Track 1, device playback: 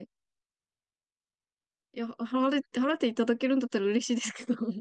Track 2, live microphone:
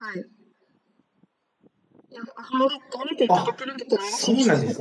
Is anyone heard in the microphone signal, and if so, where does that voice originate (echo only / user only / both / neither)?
both